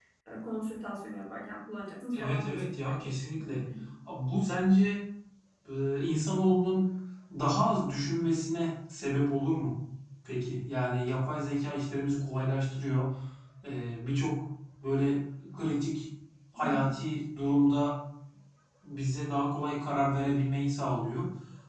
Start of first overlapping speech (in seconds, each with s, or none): 2.1 s